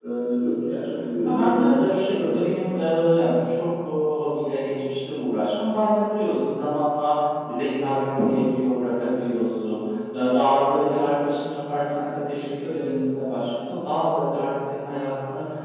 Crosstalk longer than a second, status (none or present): present